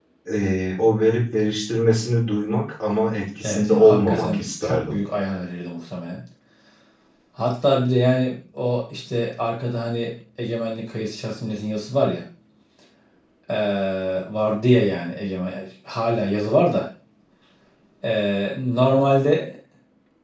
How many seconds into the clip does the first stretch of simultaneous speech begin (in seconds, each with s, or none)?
3.4 s